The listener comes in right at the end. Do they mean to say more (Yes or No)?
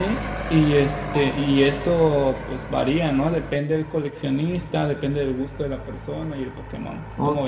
Yes